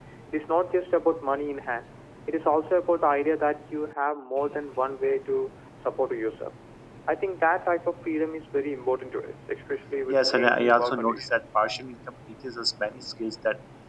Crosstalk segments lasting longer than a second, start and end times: 10.1-11.3

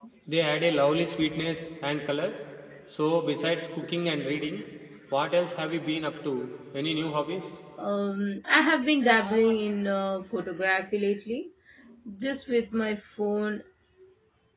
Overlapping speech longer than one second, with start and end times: none

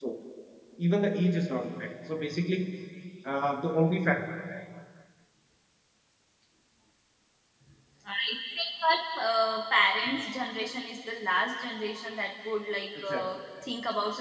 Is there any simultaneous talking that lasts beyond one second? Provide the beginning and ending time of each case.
none

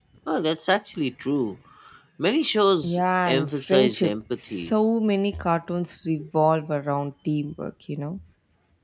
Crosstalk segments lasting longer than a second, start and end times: 2.8-4.7

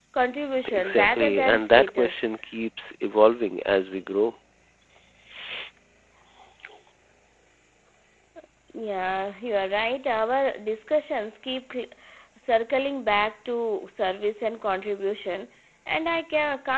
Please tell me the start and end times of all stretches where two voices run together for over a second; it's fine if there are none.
0.7-2.4

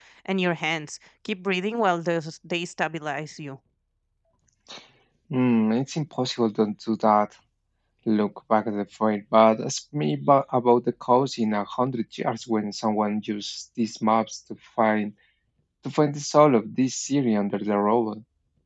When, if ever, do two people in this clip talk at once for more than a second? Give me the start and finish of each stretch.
none

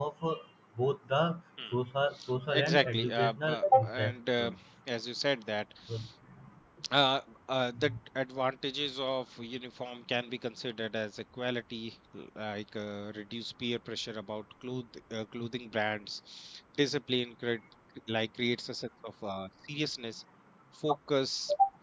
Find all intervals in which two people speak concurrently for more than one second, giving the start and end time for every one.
2.5-4.4

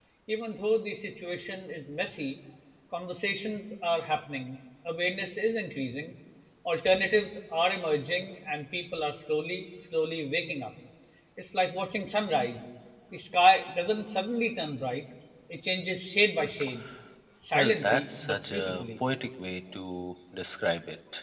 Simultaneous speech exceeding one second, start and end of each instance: 17.5-18.8

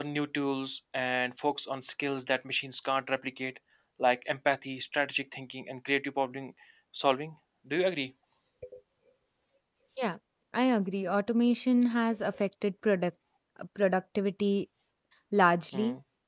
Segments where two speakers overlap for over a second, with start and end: none

